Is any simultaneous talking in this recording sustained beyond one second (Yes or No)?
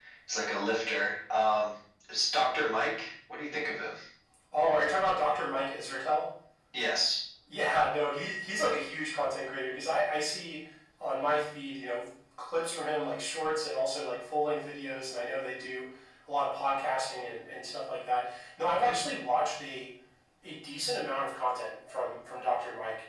No